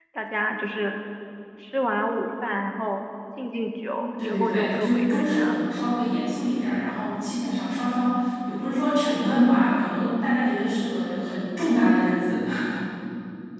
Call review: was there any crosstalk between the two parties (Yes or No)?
Yes